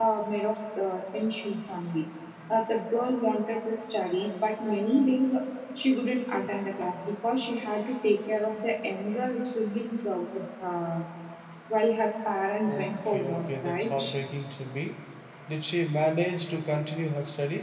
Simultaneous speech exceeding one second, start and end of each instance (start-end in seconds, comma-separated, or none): 12.7-14.0